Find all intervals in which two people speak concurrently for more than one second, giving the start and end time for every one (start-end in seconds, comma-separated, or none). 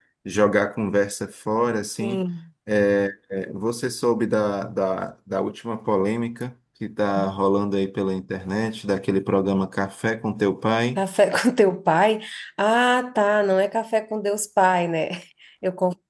none